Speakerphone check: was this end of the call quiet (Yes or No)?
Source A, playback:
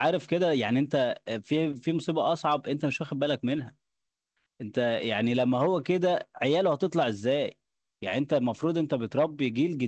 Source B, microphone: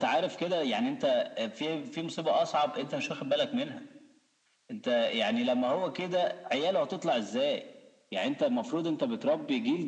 Yes